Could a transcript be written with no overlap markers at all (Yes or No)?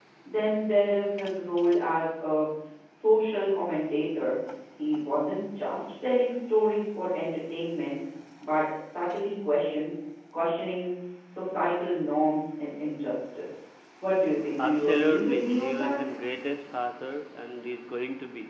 No